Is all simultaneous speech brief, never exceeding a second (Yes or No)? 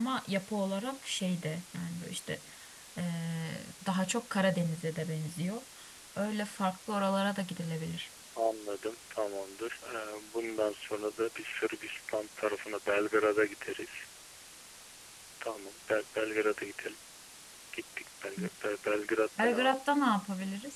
Yes